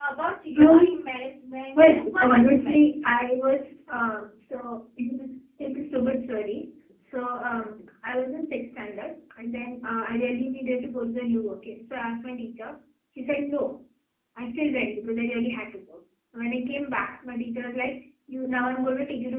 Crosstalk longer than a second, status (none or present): present